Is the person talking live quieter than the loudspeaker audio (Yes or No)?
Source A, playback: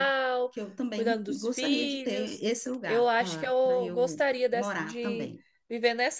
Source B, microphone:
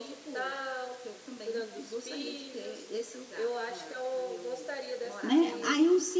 No